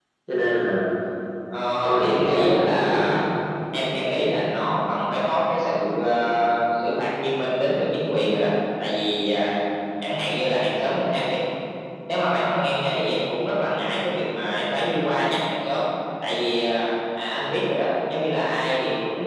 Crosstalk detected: Yes, from 2.0 s

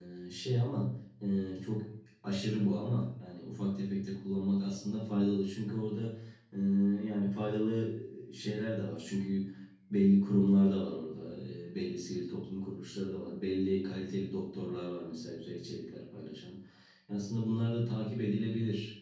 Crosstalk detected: No

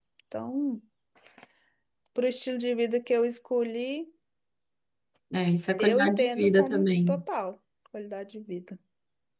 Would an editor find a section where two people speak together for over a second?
Yes, from 5.8 s

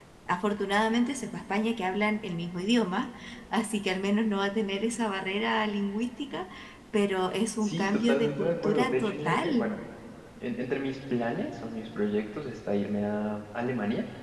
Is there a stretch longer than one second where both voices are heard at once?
Yes, from 7.6 s

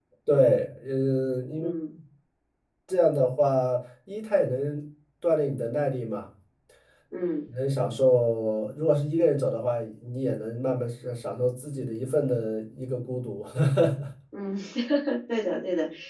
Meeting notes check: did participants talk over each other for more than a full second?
No

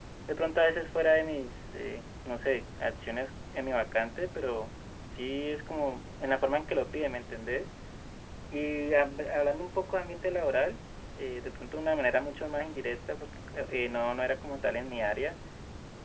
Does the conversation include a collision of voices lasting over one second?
No

